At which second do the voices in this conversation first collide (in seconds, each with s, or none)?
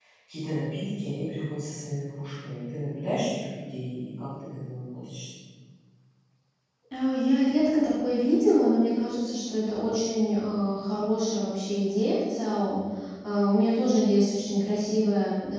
none